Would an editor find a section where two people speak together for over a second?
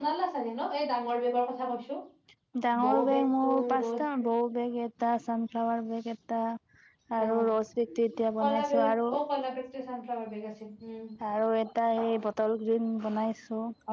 Yes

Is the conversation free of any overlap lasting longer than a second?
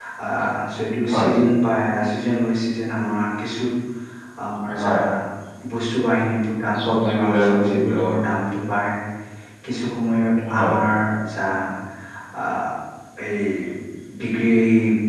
No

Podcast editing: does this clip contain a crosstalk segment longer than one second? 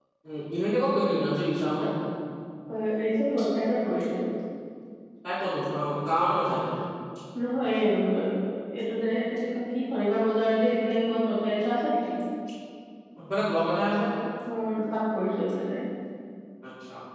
No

